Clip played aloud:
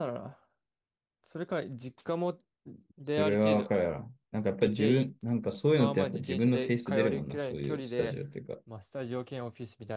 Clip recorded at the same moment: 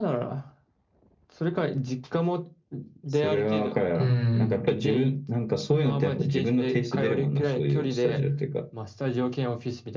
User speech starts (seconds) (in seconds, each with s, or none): 4.0 s